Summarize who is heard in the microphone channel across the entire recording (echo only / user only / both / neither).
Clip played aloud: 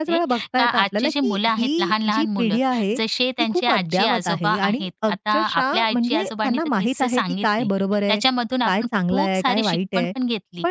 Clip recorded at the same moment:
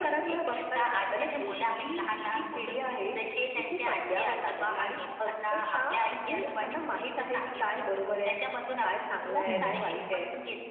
both